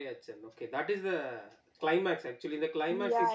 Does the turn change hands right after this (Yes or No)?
Yes